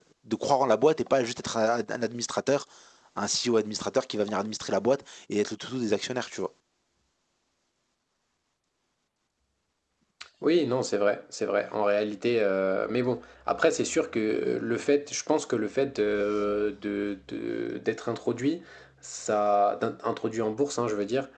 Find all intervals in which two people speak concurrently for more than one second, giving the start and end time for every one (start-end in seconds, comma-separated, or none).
none